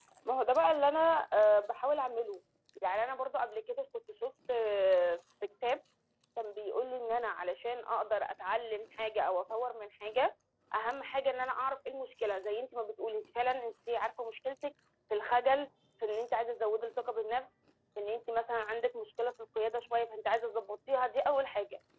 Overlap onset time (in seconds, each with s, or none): none